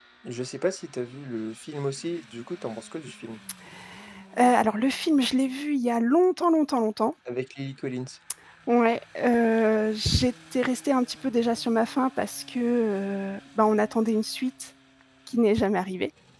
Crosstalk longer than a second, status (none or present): none